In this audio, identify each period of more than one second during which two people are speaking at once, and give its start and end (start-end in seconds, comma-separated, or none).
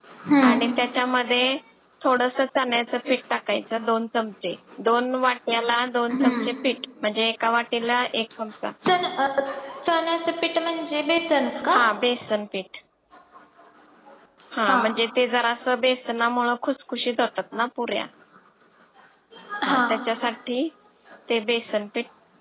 none